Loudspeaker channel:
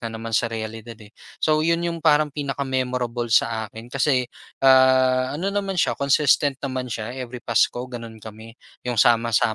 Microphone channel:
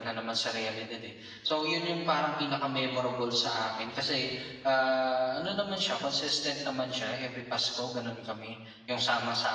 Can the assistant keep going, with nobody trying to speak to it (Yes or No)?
Yes